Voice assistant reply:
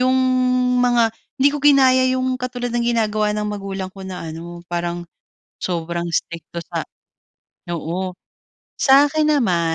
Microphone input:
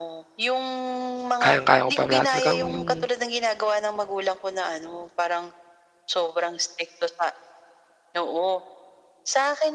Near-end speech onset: 1.4 s

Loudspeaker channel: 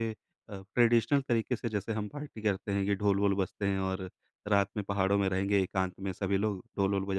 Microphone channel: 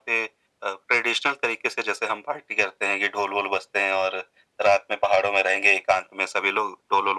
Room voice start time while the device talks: none

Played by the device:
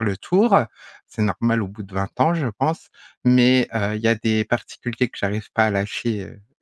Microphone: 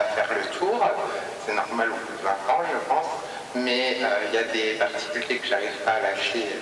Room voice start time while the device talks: none

